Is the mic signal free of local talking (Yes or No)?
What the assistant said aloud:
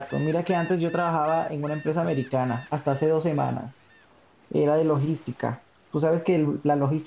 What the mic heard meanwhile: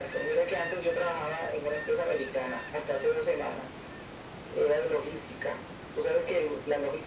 Yes